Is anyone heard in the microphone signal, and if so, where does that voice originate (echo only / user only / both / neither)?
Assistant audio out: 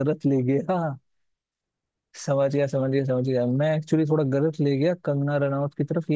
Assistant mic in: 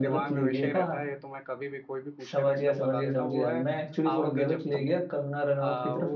both